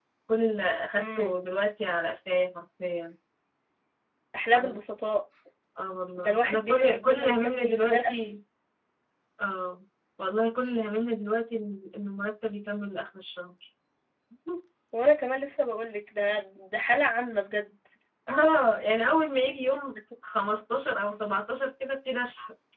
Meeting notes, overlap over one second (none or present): present